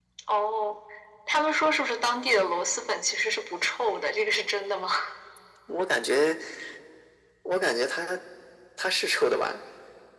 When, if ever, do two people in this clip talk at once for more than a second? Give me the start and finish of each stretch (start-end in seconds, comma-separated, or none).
none